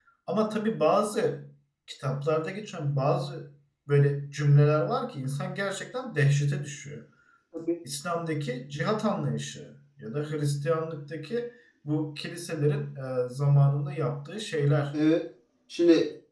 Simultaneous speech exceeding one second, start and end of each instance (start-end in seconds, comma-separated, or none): none